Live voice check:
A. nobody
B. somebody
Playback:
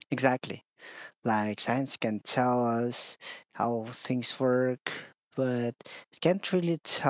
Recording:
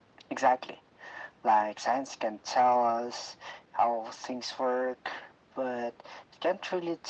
A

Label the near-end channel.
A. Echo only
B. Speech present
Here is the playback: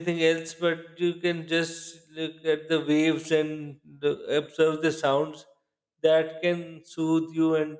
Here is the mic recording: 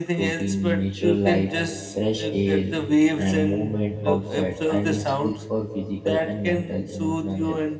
B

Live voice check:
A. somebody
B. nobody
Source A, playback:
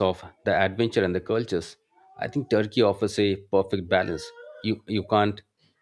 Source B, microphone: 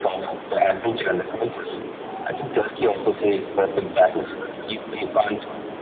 B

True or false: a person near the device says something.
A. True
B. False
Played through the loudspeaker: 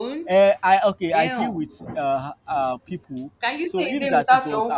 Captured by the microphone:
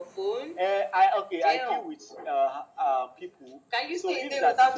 B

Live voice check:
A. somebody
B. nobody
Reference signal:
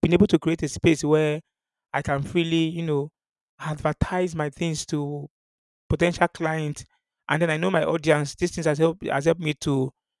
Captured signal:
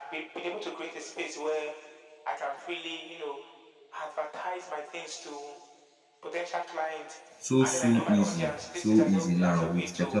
A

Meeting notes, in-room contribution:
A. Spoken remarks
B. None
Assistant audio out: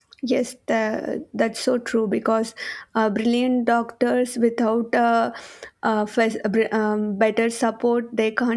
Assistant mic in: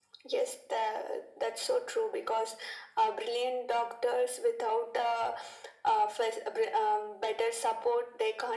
B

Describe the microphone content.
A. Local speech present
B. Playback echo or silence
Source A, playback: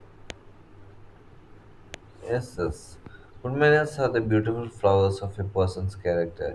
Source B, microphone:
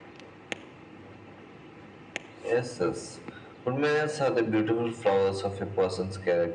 B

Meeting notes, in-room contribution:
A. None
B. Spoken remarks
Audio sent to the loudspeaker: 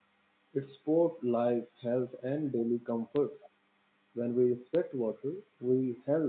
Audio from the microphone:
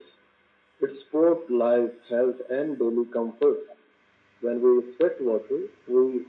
A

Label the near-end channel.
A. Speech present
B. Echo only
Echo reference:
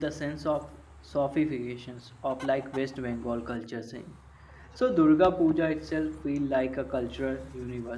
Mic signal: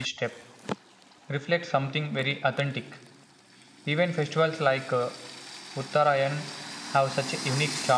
A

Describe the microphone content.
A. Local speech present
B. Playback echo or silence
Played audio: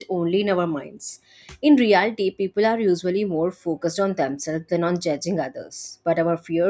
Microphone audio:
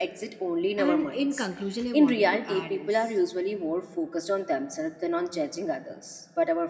A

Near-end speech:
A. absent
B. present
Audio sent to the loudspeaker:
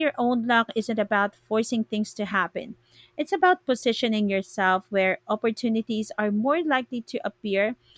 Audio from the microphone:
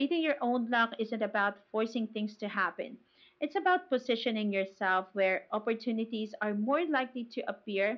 A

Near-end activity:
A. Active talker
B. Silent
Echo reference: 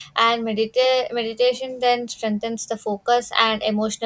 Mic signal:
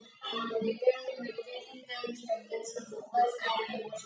B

